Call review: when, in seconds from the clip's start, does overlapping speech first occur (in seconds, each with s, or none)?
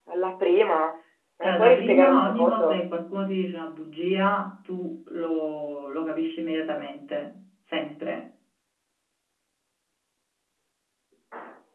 1.4 s